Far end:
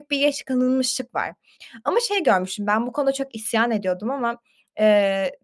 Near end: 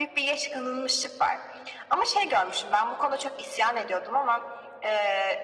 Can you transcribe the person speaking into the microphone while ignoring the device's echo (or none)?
none